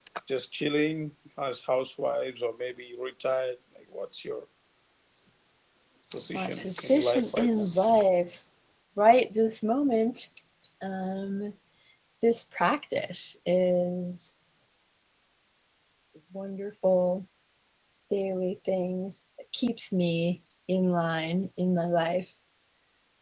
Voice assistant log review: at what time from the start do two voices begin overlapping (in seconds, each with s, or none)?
6.3 s